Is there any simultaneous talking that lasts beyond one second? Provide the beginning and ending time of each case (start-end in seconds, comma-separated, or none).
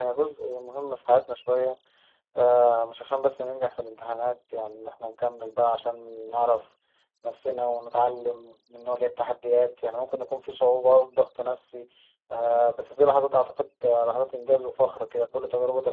none